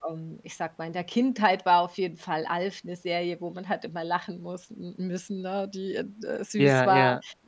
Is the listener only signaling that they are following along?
Yes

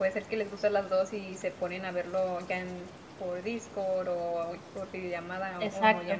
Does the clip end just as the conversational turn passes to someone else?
Yes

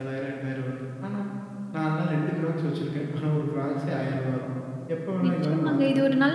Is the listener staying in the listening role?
No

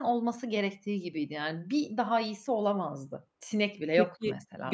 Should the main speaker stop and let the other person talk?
Yes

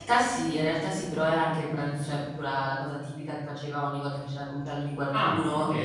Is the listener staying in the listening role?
Yes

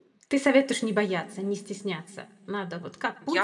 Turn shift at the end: Yes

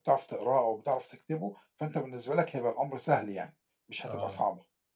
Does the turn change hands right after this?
Yes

